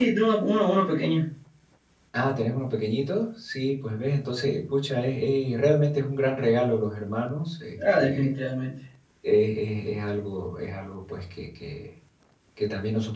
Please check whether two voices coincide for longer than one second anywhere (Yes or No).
No